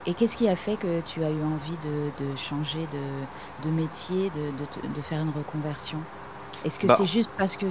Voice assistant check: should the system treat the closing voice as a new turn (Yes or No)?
No